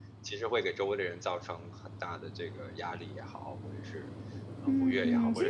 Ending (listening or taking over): taking over